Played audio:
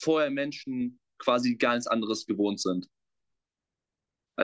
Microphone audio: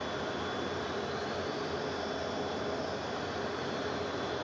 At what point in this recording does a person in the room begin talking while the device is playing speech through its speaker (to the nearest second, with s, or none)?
none